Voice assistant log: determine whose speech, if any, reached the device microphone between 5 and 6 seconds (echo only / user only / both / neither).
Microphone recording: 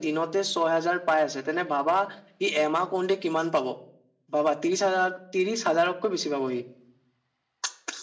echo only